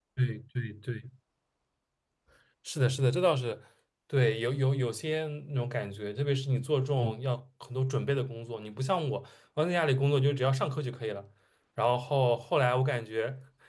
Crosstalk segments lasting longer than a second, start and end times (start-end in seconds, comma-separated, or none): none